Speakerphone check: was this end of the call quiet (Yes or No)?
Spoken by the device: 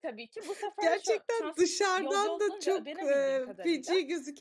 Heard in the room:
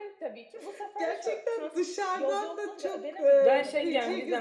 No